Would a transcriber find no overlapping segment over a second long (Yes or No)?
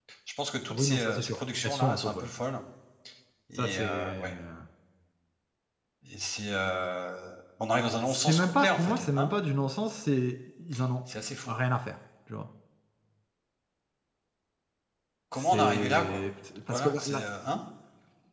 No